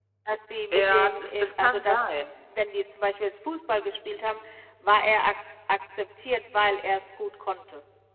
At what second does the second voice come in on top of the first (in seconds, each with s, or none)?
0.7 s